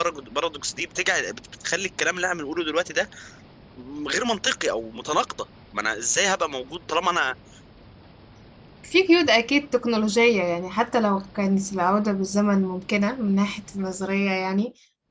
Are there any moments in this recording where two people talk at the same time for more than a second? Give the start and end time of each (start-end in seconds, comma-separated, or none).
none